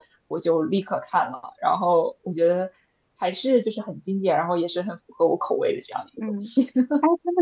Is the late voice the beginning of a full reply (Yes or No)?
Yes